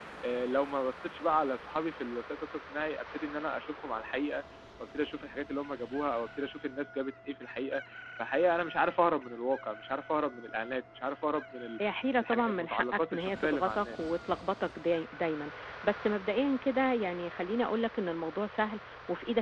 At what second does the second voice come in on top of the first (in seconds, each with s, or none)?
12.2 s